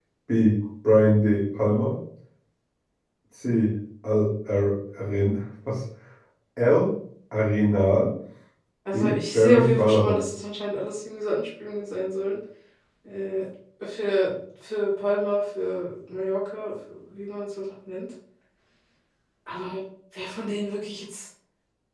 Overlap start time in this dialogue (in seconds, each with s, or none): 8.9 s